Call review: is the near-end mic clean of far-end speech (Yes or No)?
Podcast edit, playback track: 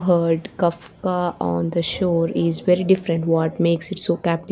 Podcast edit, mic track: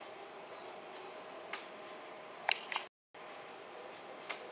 Yes